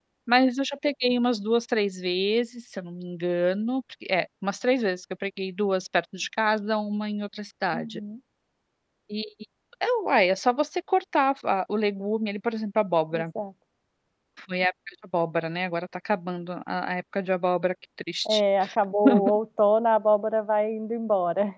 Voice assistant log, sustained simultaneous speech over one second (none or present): none